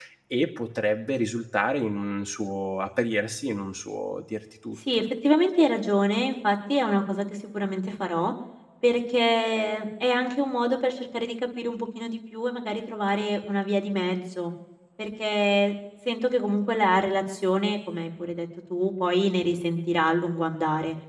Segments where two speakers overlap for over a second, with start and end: none

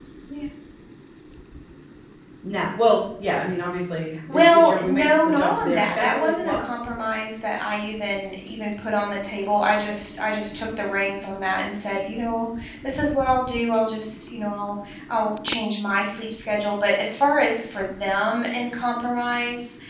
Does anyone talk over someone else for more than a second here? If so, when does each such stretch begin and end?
4.3-6.6

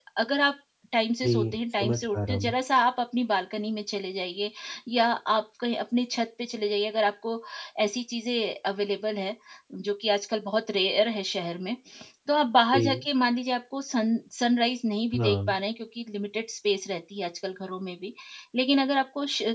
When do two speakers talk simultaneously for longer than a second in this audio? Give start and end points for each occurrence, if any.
1.2-2.5

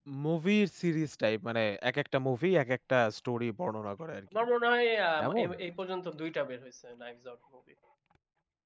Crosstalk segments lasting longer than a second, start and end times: none

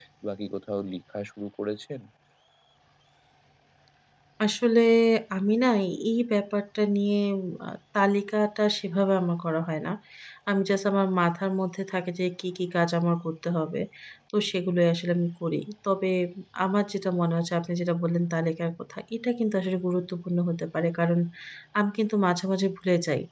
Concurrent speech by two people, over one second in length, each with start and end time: none

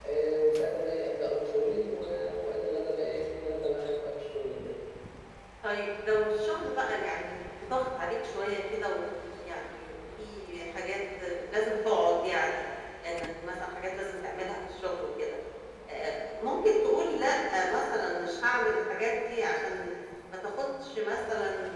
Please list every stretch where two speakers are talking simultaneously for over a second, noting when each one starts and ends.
none

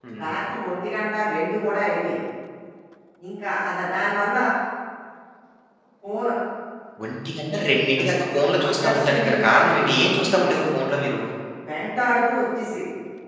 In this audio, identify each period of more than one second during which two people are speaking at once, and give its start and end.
8.7-10.6

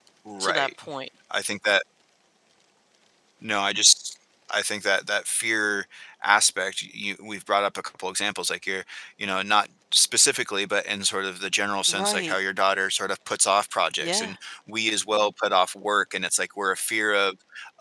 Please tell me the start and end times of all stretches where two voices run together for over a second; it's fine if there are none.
none

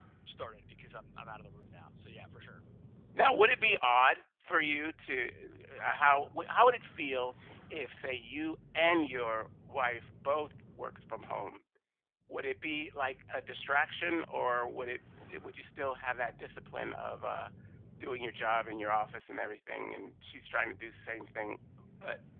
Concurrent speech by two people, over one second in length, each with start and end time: none

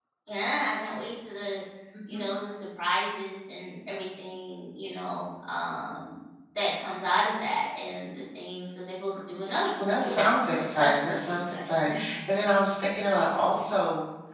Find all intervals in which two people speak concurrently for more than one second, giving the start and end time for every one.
9.8-11.9

